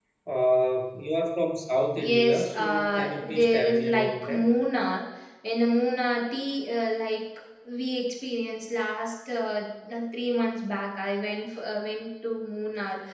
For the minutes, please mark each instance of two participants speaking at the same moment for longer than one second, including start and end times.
2.0-4.5

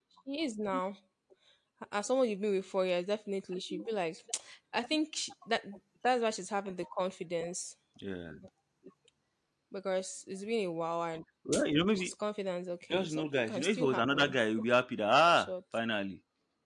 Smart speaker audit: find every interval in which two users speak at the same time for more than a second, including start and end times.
12.9-14.3

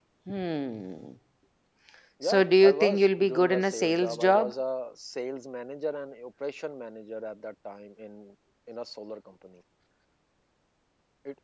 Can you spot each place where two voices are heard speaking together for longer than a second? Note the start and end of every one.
2.2-4.5

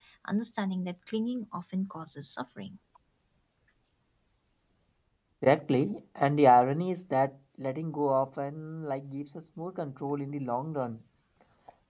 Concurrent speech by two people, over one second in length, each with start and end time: none

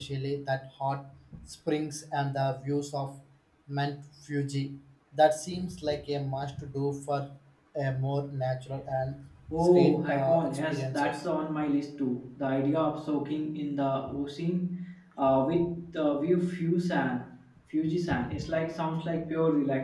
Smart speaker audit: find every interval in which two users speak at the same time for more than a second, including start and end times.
9.6-11.2

